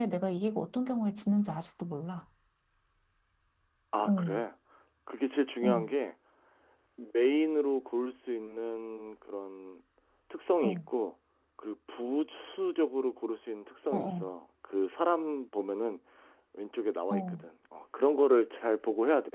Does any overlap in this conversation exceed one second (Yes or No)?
No